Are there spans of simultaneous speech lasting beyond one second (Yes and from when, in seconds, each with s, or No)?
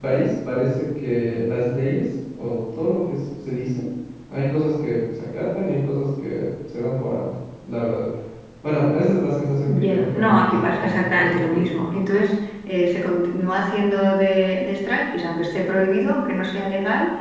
Yes, from 9.7 s